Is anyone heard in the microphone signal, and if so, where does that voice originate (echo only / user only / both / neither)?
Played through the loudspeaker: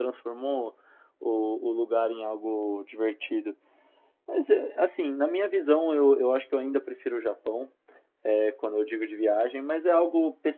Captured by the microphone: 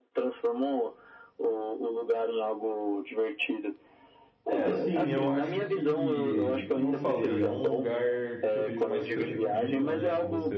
both